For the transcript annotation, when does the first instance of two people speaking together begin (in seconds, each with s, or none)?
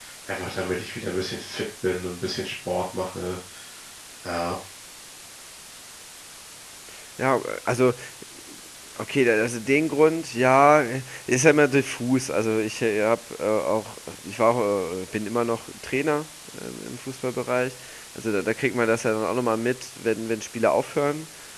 none